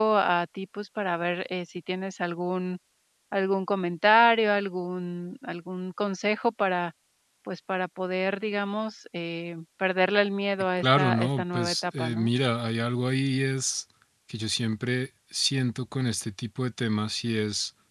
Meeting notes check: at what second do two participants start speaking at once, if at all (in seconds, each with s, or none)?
10.8 s